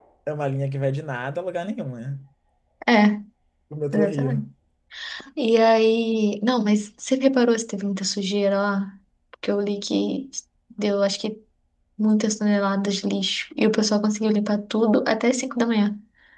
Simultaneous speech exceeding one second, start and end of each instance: none

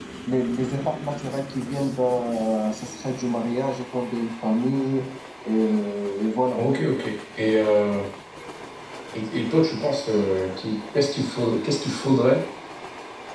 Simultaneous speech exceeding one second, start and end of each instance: none

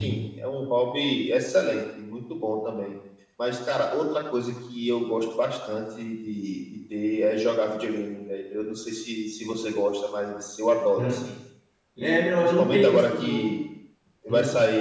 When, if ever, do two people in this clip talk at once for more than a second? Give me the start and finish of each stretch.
12.0-13.5

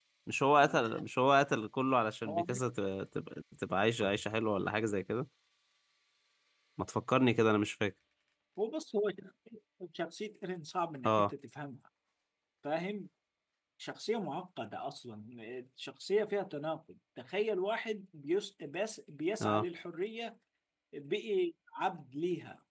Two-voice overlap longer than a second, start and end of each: none

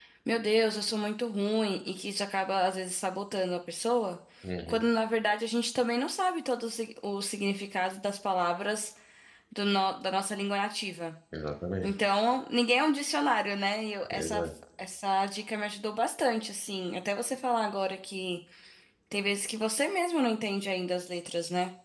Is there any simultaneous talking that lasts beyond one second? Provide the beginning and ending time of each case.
none

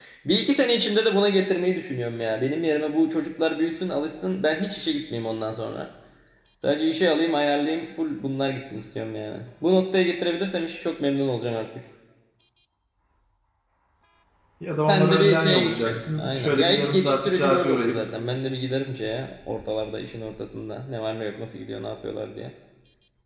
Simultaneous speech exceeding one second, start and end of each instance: 14.9-17.9

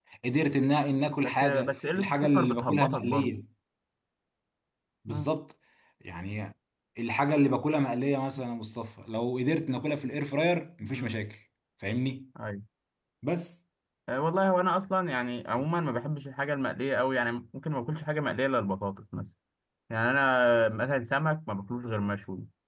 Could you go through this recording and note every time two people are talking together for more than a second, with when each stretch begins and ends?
1.2-3.3

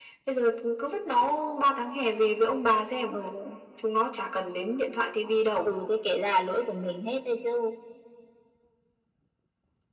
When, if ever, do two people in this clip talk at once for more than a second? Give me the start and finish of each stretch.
none

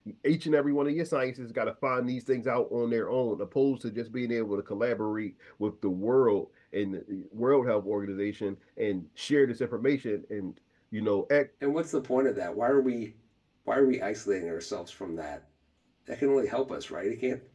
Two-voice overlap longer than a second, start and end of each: none

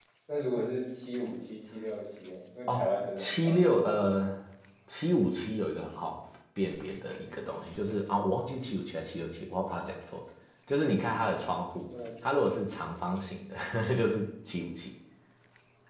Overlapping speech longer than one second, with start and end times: 2.7-4.0

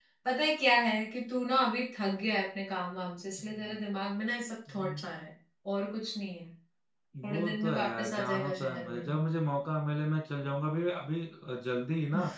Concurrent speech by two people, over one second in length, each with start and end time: 7.2-9.1

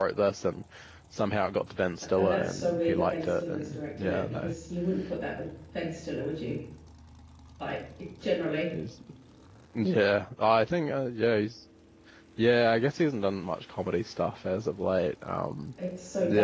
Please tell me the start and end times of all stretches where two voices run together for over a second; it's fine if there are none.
2.2-4.5

